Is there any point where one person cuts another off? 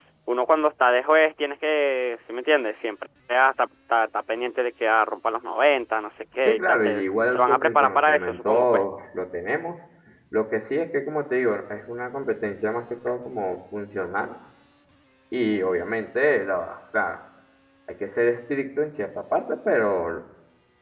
Yes, from 6.4 s

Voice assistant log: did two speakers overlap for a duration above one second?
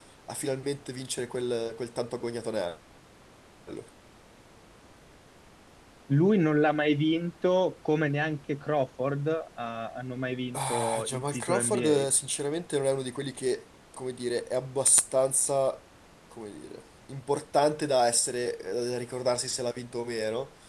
Yes, from 10.5 s

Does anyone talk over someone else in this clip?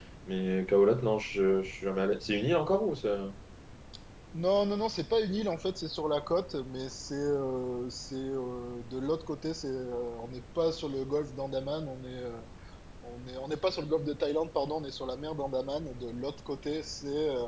No

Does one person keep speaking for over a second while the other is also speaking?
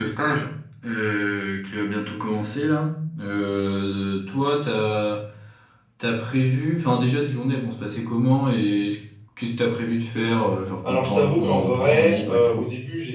Yes, from 10.8 s

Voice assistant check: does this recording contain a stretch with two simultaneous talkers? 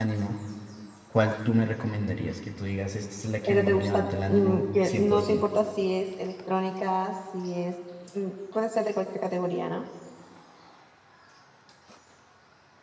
Yes, from 3.5 s

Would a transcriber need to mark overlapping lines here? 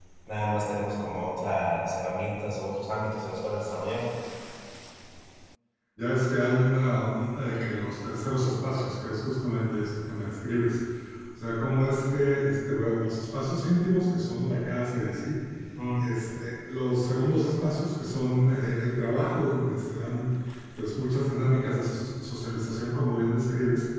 No

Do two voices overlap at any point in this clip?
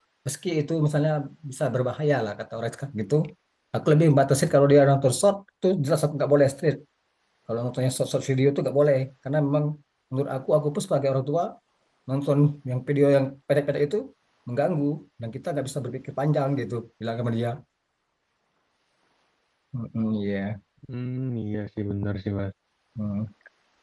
No

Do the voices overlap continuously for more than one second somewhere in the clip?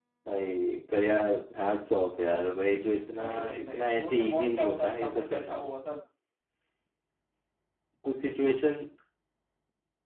Yes, from 3.0 s

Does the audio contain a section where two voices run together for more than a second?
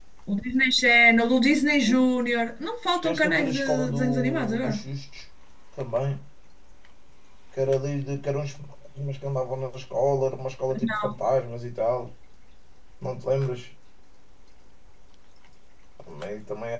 Yes, from 3.0 s

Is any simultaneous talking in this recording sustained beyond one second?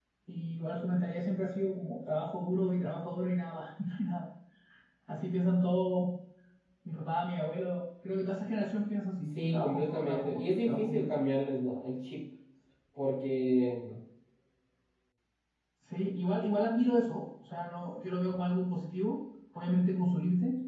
Yes, from 9.2 s

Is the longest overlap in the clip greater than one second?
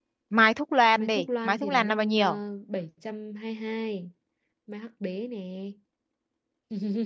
Yes, from 1.0 s

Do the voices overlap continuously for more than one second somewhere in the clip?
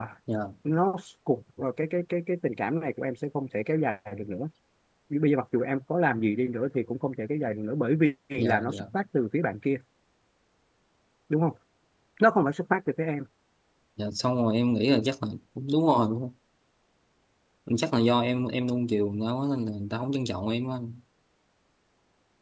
No

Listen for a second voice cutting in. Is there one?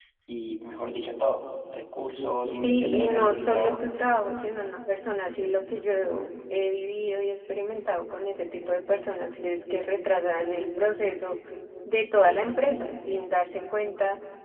Yes, from 2.6 s

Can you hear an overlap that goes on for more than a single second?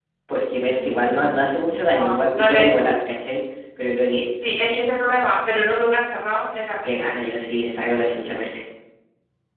Yes, from 0.7 s

